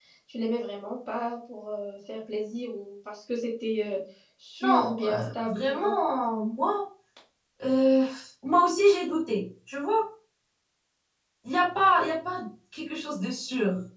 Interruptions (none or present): present